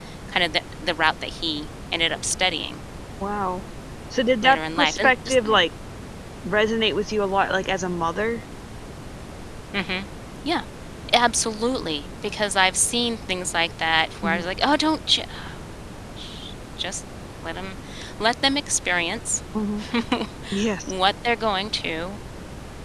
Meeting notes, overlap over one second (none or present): present